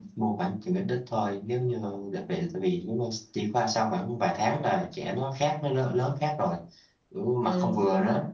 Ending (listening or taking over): taking over